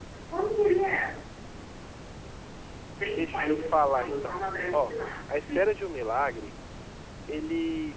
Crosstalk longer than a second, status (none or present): present